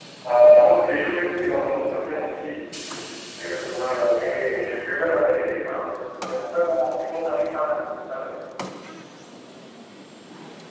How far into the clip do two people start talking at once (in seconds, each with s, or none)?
4.2 s